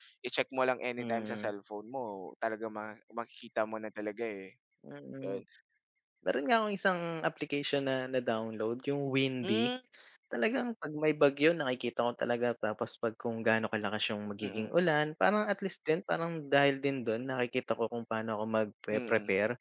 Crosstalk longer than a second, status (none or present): none